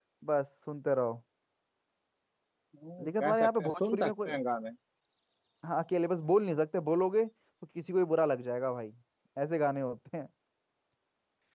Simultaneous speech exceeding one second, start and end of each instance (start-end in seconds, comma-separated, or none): 3.0-4.3